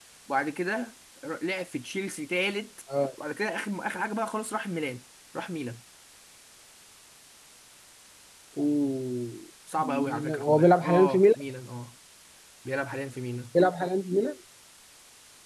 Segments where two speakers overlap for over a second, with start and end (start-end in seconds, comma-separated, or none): 9.8-11.4